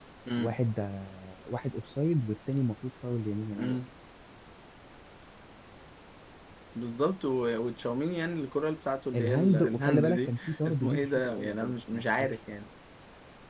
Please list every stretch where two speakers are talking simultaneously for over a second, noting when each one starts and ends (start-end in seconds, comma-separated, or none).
9.1-12.3